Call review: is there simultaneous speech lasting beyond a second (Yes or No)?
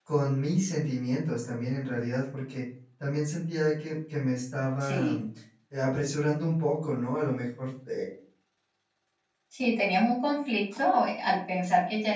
No